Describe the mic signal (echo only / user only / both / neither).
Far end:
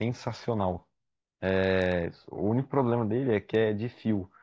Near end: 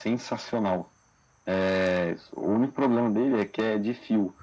echo only